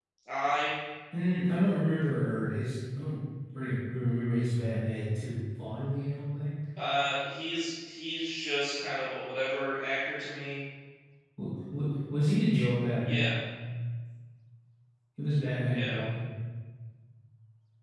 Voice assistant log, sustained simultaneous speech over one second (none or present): none